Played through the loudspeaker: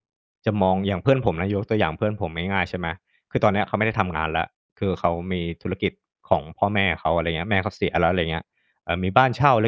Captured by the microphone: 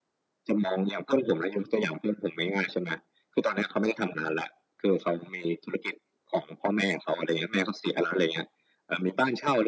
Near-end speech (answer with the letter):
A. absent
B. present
A